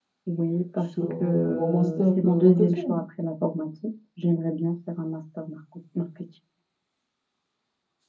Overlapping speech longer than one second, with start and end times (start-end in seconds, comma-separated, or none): 0.8-3.0